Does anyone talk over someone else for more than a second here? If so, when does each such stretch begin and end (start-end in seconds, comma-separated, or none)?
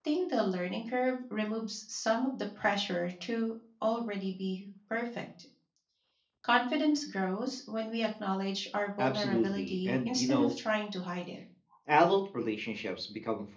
9.0-10.5